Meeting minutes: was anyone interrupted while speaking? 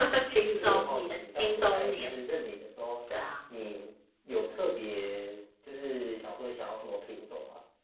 Yes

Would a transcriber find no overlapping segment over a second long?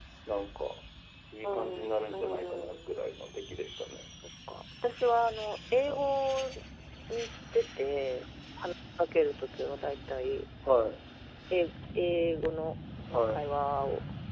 No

